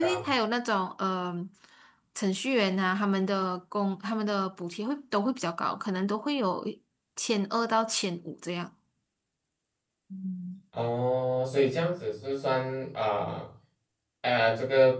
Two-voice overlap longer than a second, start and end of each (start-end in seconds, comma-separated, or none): none